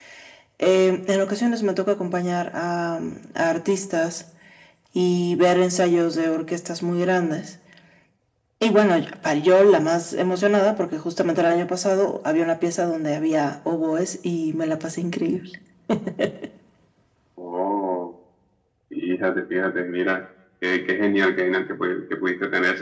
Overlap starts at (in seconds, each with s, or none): none